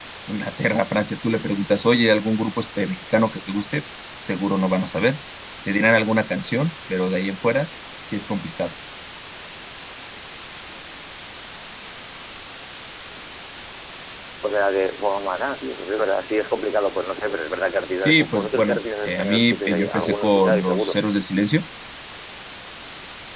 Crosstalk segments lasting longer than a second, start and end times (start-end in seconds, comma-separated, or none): 18.0-21.0